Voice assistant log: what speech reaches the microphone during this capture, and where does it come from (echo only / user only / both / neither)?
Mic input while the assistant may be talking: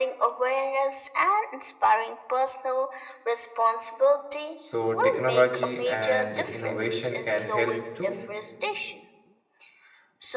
both